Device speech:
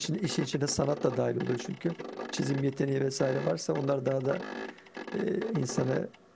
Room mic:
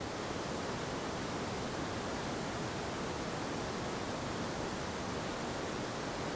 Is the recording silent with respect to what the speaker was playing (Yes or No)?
Yes